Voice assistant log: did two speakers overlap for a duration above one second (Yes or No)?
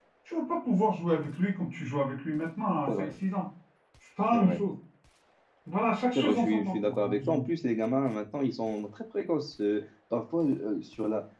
Yes